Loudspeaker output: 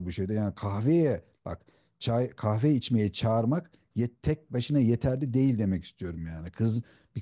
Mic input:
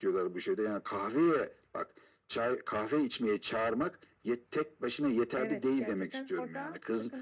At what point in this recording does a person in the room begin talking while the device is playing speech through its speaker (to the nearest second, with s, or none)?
5 s